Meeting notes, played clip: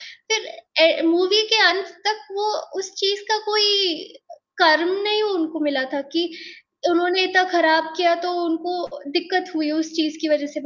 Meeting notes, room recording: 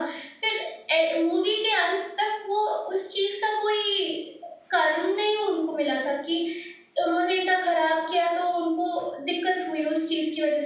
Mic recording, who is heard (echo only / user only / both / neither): echo only